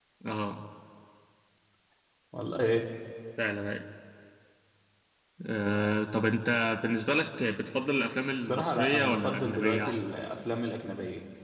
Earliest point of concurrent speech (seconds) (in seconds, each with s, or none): 8.3 s